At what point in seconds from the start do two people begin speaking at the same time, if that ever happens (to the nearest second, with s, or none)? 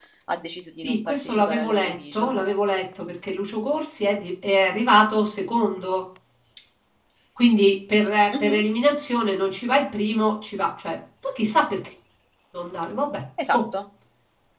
1 s